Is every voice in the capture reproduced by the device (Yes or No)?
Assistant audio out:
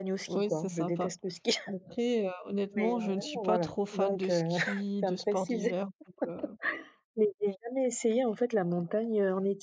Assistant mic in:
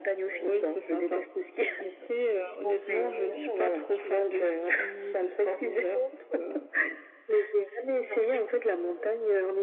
No